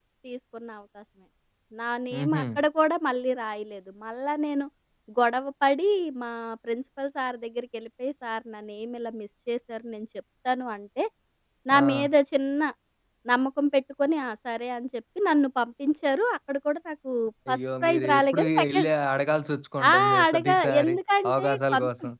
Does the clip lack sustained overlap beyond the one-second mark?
No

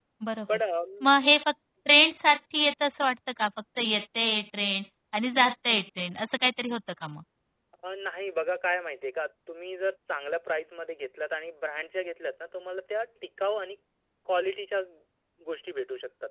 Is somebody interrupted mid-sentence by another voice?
No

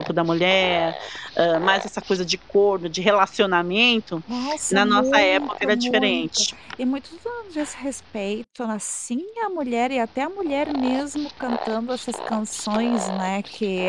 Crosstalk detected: Yes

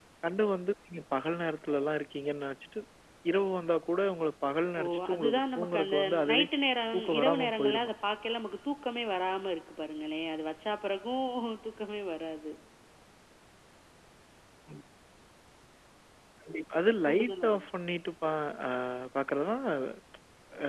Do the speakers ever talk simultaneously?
Yes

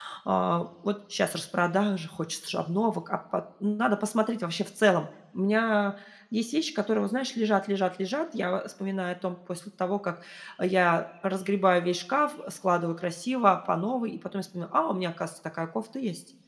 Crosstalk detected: No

